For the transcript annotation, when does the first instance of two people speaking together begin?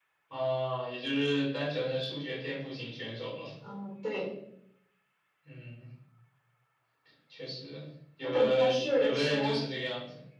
8.2 s

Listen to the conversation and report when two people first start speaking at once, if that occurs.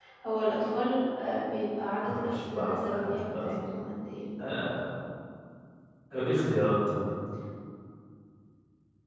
2.0 s

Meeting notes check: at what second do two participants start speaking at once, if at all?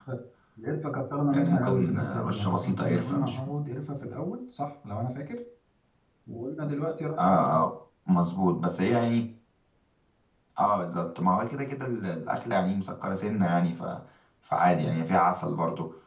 1.3 s

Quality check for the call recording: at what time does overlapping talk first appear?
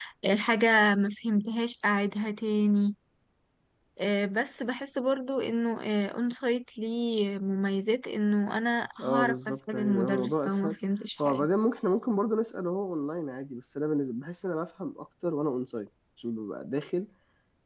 9.0 s

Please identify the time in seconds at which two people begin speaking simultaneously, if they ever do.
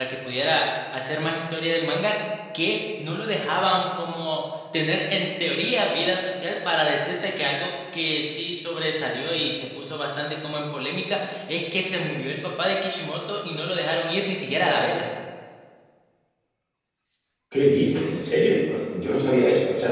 none

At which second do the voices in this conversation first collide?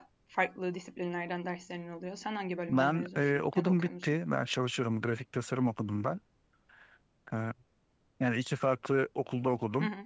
2.7 s

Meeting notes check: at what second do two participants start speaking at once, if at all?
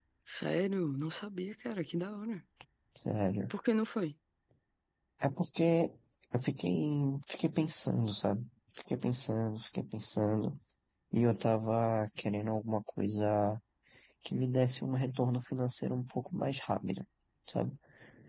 none

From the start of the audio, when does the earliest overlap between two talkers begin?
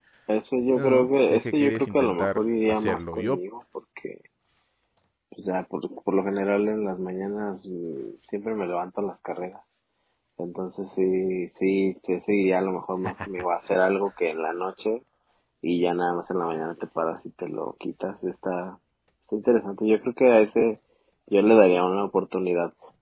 0.8 s

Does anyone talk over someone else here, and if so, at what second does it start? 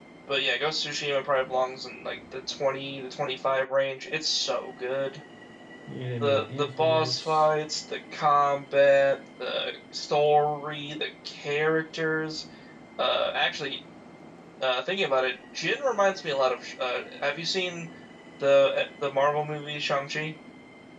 6.2 s

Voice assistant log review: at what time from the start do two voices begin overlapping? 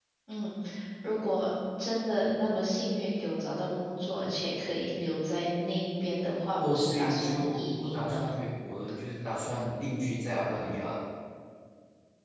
6.6 s

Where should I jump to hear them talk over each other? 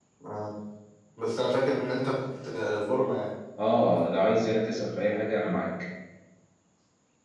none

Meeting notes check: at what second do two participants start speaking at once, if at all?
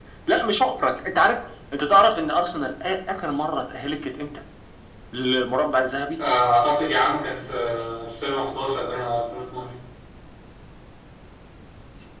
none

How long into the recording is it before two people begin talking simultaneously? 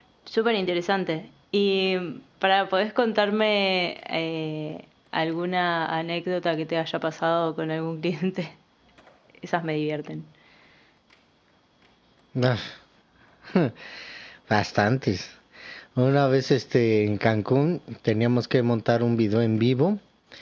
none

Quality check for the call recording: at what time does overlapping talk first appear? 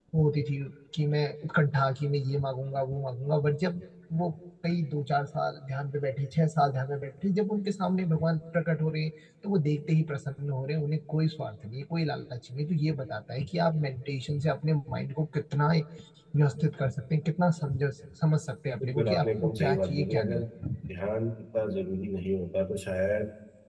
18.8 s

